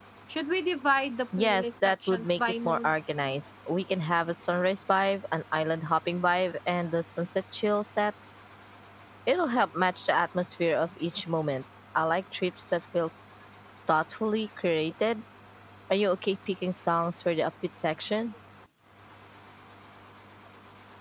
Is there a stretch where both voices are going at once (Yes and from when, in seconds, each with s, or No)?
Yes, from 1.3 s